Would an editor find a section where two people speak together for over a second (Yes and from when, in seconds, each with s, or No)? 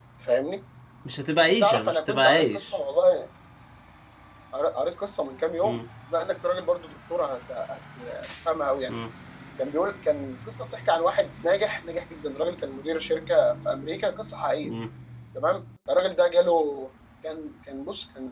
Yes, from 1.5 s